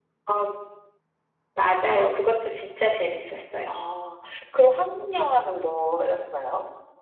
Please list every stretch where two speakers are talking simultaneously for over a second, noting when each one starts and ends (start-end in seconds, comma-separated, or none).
none